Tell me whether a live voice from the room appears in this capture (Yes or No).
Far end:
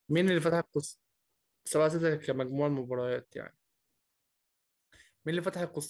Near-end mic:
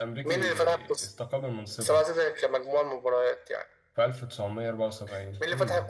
Yes